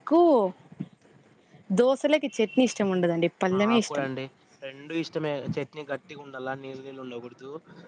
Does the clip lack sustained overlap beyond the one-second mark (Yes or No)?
Yes